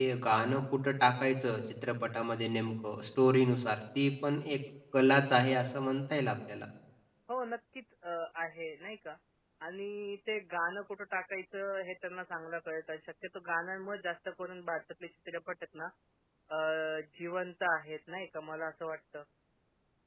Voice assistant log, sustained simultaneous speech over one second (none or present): none